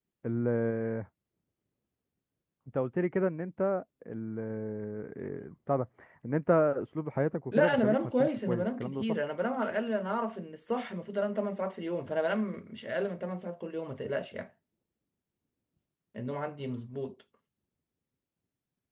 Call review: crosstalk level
present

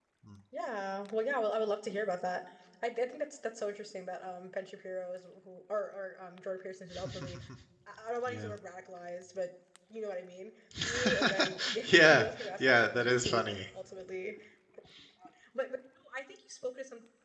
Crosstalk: present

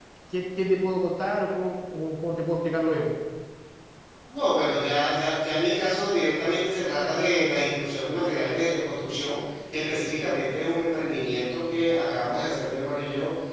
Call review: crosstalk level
none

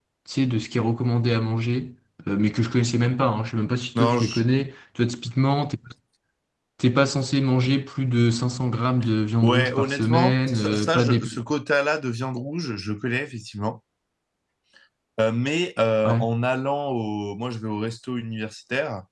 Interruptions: present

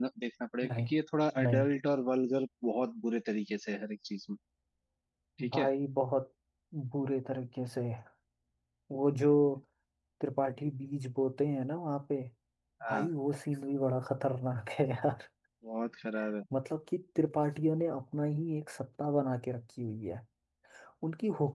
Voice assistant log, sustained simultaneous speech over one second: none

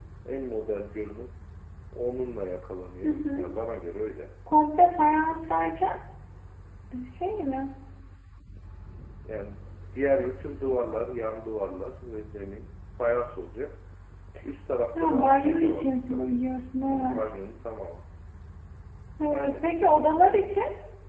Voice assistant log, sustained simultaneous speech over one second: present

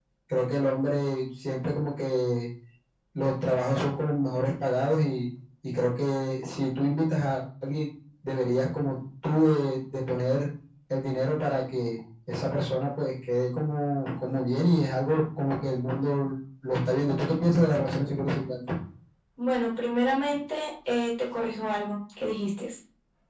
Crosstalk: none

